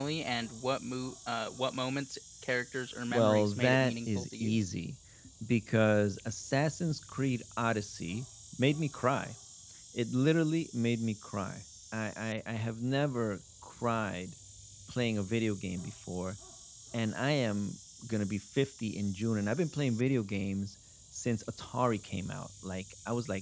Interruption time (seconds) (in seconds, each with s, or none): 3.1 s